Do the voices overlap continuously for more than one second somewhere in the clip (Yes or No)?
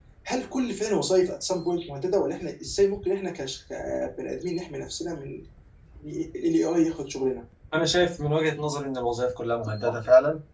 No